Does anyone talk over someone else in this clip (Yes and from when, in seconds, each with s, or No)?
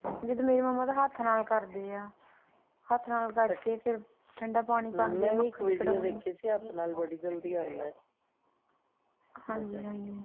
Yes, from 4.9 s